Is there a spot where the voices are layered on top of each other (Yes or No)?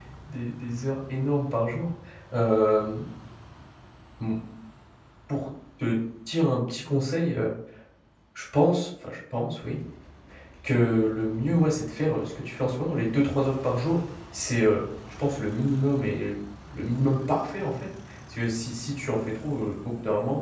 No